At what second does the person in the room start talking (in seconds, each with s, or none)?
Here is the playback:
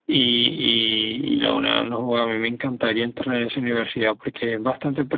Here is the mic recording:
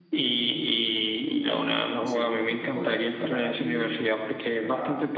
1.5 s